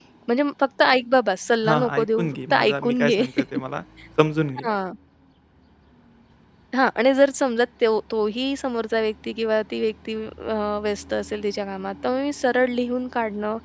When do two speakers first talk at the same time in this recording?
1.6 s

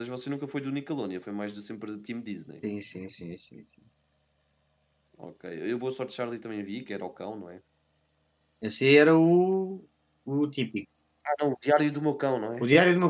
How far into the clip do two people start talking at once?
none

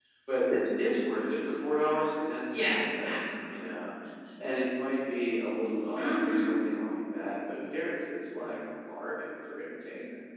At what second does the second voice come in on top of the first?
2.5 s

